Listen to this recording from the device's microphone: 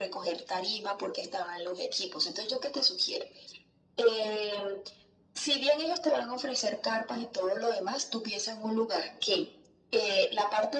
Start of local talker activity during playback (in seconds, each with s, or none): none